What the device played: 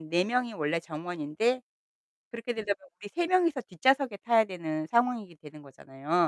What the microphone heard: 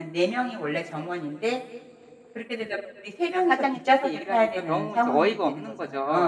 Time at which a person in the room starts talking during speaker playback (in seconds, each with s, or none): 3.3 s